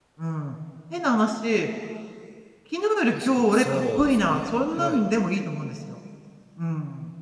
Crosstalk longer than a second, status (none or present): present